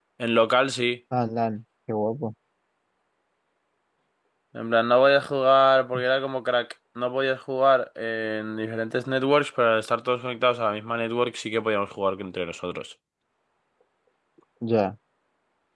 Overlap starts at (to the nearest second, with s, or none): none